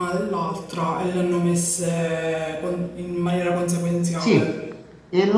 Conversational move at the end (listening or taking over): taking over